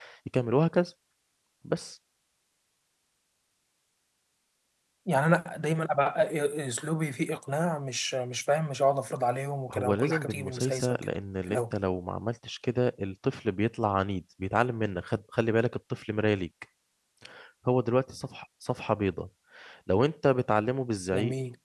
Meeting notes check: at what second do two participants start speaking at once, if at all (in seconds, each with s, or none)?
9.7 s